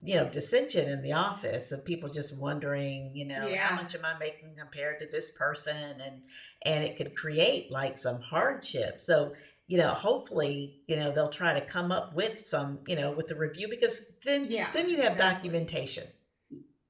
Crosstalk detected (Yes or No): Yes